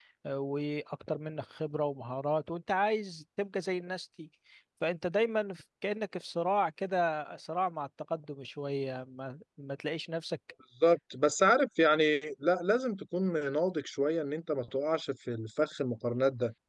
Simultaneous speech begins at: none

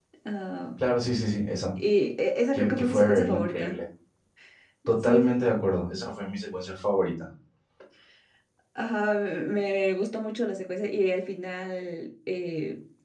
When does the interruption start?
2.5 s

